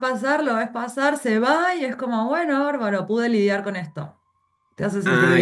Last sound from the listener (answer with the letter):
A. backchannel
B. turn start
B